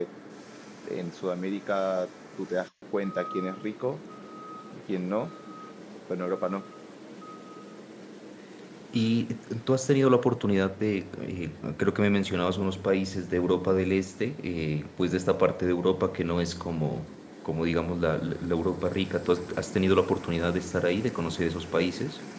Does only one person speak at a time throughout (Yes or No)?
Yes